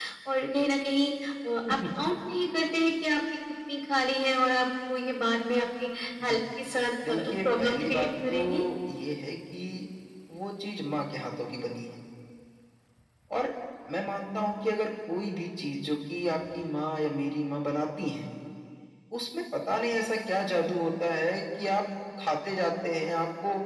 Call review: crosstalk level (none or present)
present